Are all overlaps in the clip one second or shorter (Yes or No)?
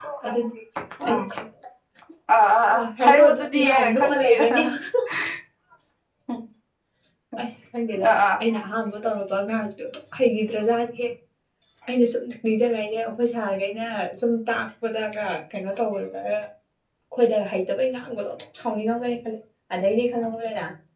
No